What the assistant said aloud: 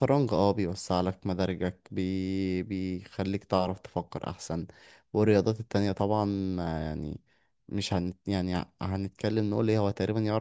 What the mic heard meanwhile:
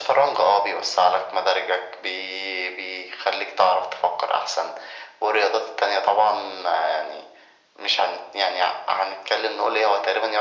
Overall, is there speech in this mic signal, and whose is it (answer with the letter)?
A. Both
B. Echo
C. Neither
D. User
B